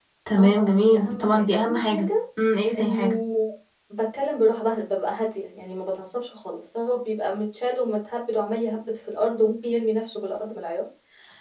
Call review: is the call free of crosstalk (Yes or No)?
No